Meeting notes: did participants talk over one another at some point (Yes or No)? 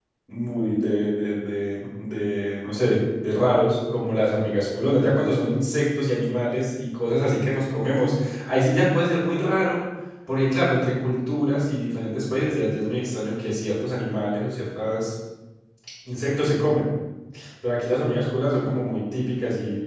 No